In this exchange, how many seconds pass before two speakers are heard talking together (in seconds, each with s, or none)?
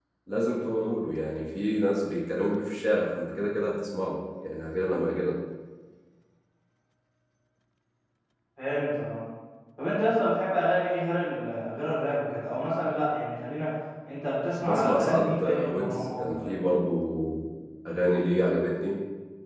14.6 s